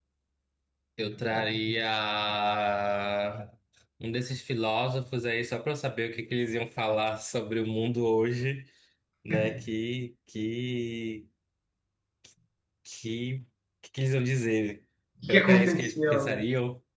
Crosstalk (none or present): present